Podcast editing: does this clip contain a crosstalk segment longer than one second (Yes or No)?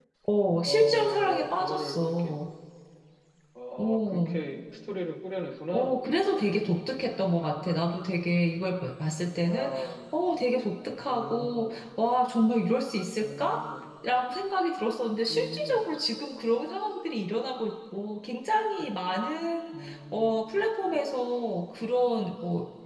Yes